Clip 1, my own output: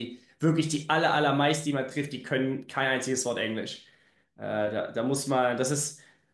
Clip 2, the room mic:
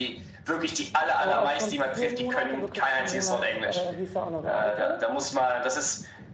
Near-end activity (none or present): present